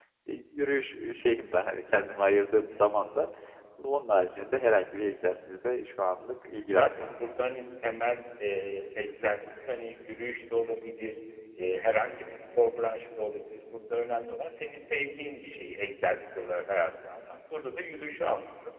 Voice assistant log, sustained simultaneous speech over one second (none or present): none